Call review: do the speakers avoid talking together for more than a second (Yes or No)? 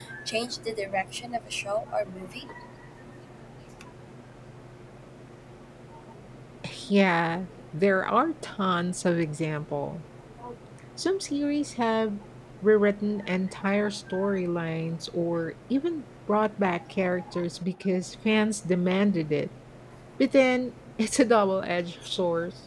Yes